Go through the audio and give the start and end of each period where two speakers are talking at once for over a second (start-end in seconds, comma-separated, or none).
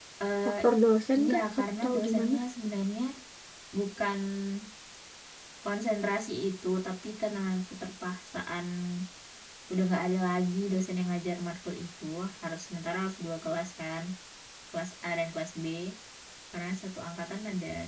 1.2-2.4